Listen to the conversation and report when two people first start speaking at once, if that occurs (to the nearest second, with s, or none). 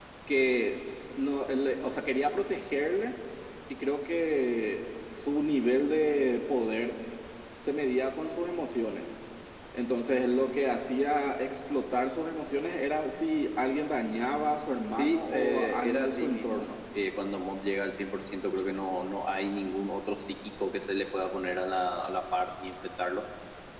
15 s